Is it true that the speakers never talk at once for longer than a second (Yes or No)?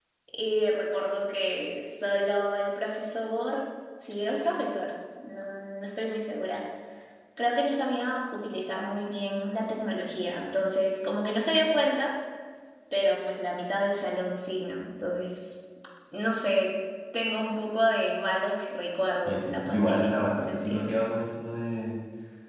No